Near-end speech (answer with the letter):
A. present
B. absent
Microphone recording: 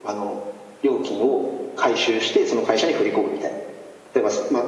B